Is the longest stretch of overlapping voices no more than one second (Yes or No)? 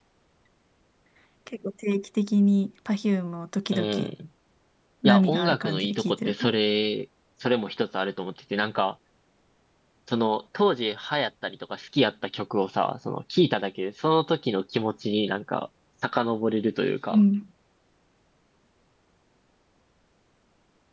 No